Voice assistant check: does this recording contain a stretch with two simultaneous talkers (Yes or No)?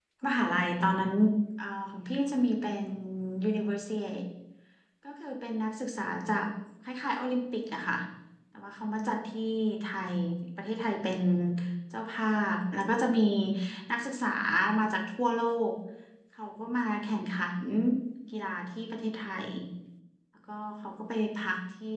No